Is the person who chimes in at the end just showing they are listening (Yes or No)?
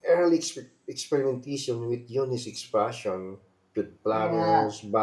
Yes